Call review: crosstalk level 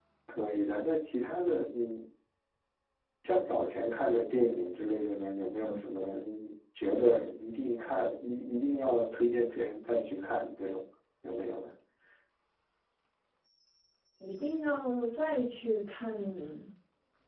none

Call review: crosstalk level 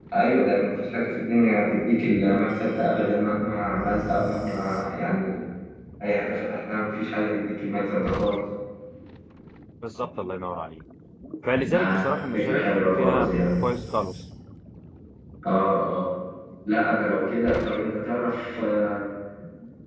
present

